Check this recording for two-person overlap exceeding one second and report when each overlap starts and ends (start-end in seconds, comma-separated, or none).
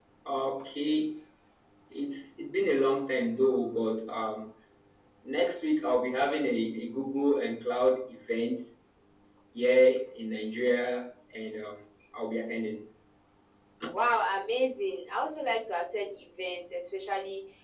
none